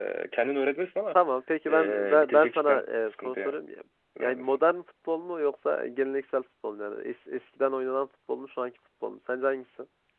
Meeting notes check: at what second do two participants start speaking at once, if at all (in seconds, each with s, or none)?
1.7 s